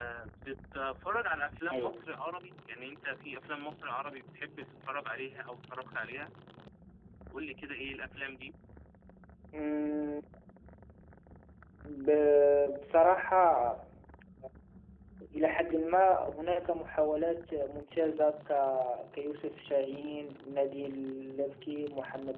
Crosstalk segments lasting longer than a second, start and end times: none

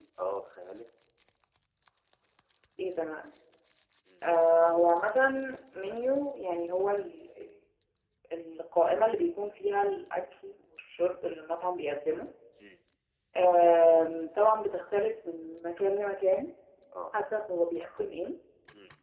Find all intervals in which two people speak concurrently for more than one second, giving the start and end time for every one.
none

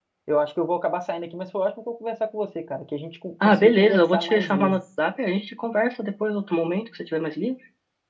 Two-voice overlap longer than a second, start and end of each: 3.4-4.8

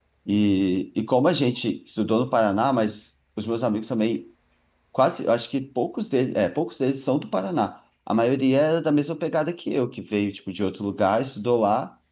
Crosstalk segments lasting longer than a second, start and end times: none

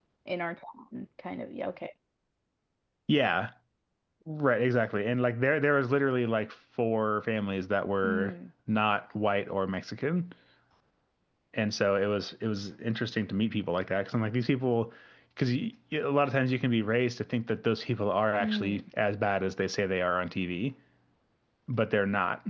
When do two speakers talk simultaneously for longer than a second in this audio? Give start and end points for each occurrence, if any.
none

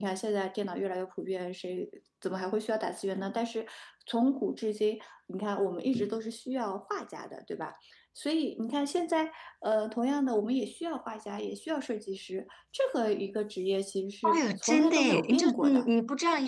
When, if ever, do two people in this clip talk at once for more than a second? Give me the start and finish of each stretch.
14.2-15.8

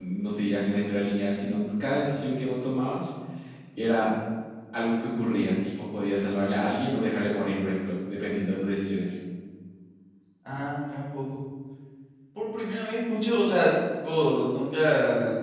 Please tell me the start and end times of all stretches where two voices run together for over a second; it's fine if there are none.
none

